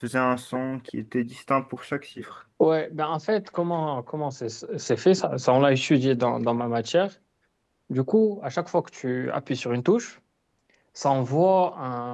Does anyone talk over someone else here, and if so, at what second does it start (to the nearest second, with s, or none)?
none